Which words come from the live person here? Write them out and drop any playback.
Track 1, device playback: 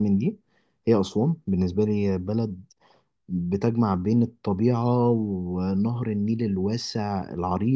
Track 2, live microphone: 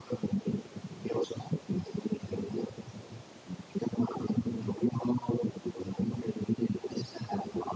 none

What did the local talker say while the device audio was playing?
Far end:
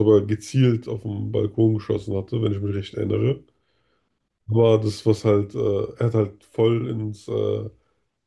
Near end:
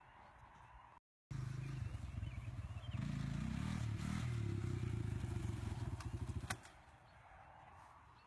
none

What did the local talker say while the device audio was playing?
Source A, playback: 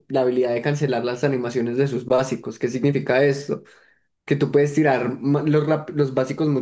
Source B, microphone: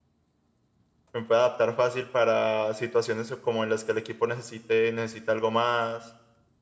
me pueda adaptar fácil para situaciones como en las que el equipo necesite, necesita algo más

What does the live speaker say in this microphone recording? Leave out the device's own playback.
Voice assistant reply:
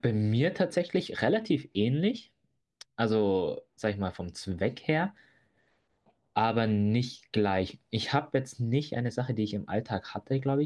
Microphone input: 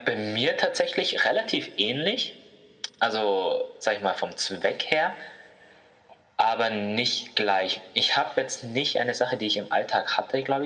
none

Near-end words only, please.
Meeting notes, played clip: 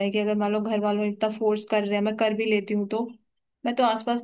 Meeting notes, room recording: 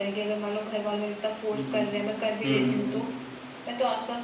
हम्म हम्म

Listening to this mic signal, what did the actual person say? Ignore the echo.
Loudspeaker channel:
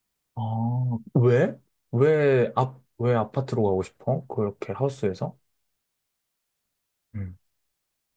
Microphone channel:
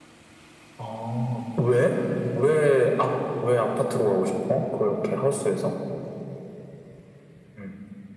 none

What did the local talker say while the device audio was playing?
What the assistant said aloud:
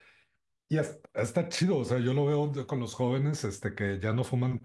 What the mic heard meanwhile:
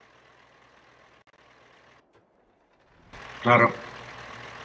claro,

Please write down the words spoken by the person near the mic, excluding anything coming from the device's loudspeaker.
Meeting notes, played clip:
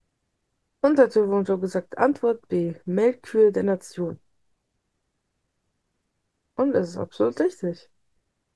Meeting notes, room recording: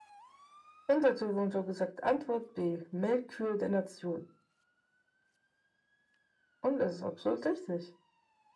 none

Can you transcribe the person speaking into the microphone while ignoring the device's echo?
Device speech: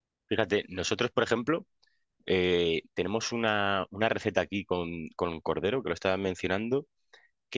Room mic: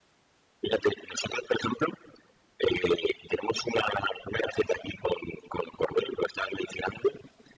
none

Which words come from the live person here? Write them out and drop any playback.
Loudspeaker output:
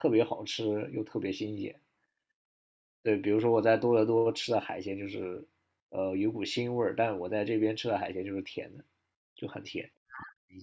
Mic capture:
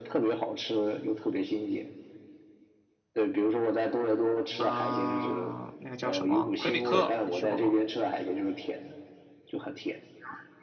嗯，那个叫什么魁北克，你去过吗？

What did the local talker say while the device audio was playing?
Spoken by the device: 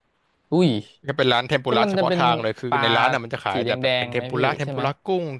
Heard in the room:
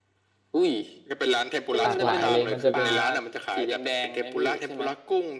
หลากหลายเลยมันจะเป็น

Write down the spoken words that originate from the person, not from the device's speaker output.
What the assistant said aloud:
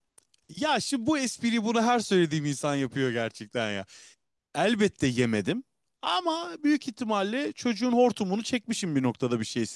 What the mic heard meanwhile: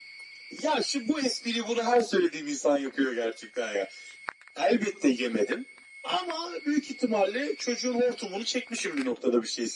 none

